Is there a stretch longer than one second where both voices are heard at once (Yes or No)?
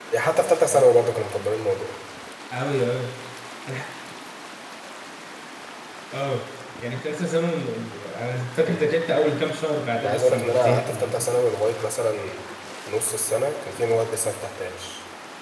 Yes